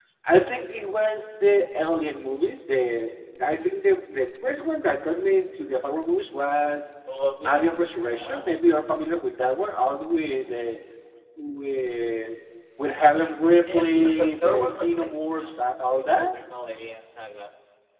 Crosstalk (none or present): present